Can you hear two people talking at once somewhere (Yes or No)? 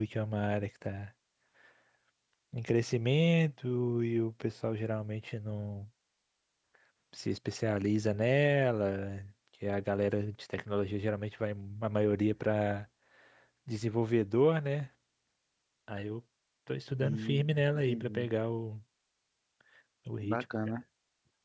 Yes